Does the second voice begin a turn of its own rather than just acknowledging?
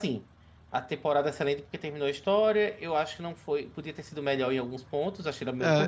Yes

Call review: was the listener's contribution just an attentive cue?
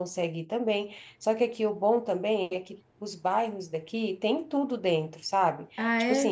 No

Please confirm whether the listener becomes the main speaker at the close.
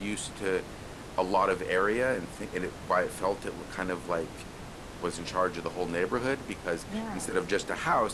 No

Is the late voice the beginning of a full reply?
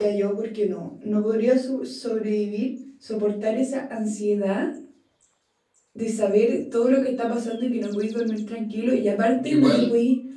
No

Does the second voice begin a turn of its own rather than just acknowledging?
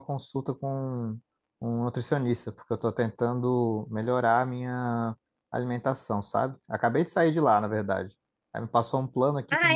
No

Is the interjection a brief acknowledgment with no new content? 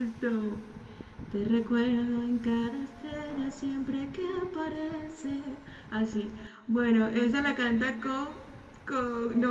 Yes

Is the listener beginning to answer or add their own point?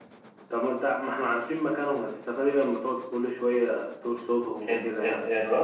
Yes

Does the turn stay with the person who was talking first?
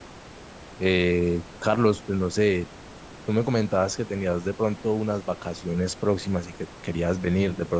Yes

